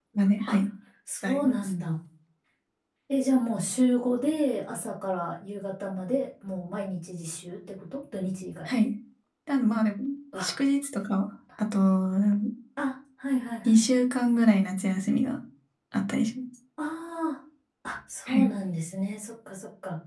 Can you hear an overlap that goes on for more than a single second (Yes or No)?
No